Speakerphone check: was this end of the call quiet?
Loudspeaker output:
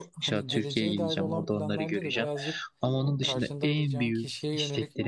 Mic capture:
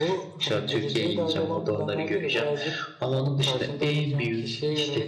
Yes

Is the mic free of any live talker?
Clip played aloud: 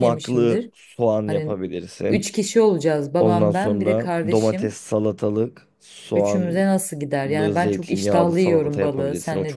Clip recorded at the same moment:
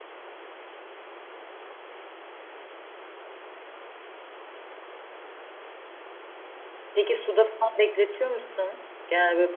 No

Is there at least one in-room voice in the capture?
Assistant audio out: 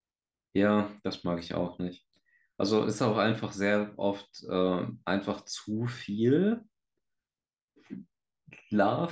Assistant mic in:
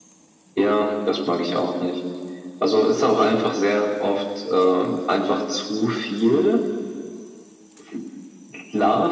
No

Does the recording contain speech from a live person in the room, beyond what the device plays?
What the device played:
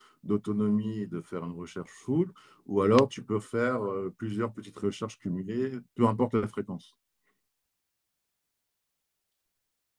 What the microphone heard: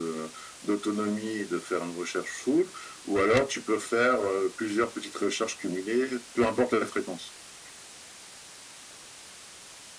No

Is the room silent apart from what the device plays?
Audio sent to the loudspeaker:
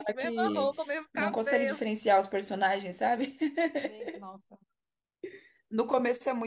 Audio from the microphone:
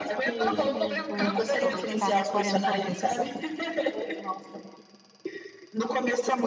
No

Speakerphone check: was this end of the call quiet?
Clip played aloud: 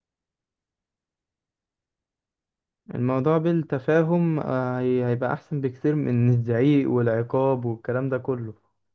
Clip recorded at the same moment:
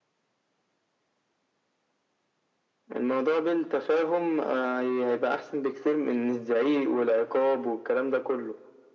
Yes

